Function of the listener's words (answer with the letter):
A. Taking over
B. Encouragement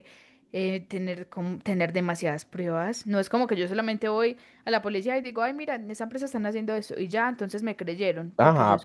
A